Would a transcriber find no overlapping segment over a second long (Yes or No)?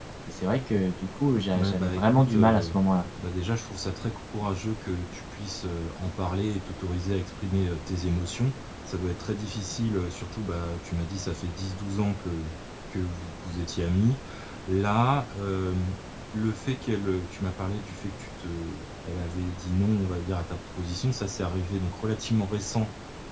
No